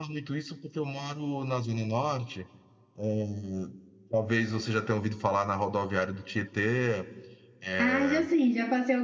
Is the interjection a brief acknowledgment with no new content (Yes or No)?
No